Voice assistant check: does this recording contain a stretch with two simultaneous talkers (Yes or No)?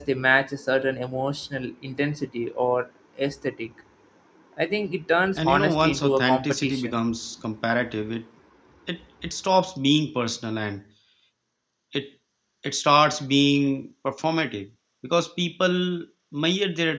Yes